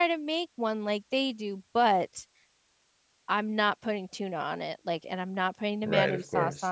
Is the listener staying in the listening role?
No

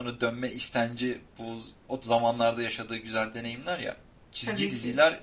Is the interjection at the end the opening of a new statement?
No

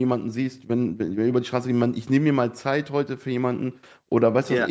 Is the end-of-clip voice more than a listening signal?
No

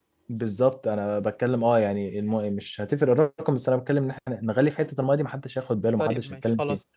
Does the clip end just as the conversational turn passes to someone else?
Yes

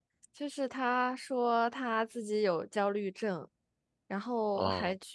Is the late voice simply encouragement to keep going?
Yes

